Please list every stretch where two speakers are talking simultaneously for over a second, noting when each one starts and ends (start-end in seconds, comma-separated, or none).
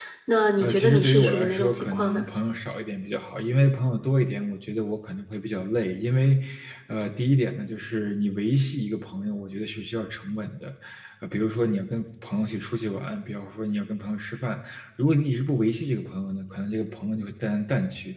0.6-2.2